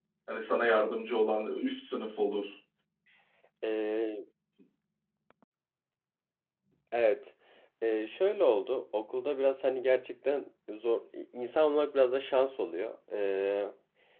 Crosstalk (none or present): none